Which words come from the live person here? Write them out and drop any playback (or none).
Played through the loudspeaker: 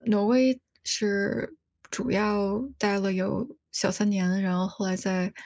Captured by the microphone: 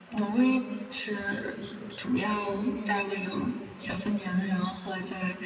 明白了。